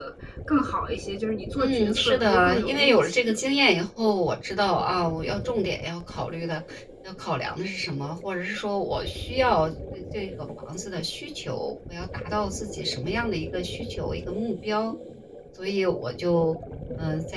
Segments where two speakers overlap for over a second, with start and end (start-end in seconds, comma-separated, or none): 1.6-3.3